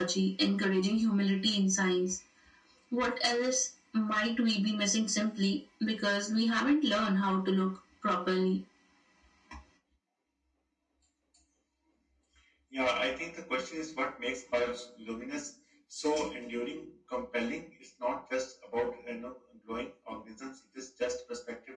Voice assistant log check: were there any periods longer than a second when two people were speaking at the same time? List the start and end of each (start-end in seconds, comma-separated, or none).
none